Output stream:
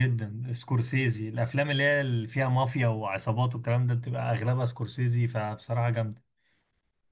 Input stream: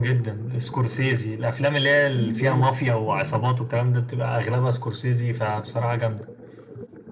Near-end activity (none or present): present